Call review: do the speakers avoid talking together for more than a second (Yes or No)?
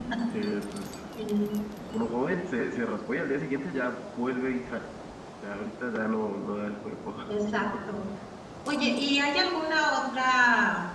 Yes